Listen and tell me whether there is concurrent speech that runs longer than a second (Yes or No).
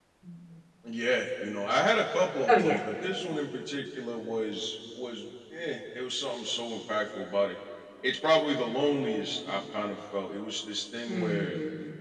No